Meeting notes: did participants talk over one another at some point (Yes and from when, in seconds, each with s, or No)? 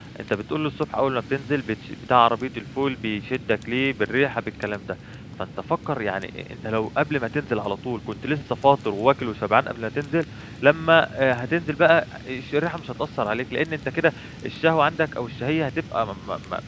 No